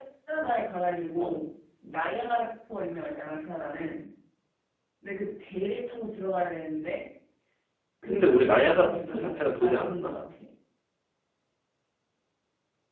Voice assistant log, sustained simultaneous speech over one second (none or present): present